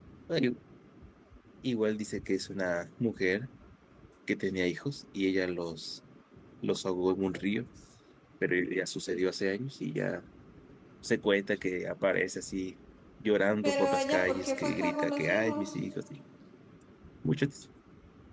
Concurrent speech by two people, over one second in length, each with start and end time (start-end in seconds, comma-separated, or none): 13.6-15.7